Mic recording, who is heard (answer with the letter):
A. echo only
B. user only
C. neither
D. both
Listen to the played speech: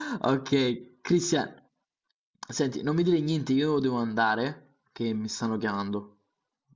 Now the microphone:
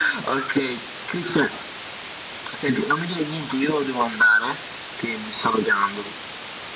A